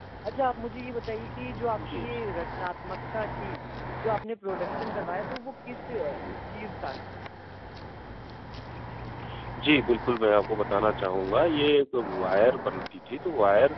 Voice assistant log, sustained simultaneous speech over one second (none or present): none